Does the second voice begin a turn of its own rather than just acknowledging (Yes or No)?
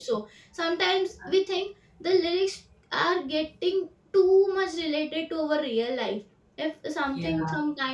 No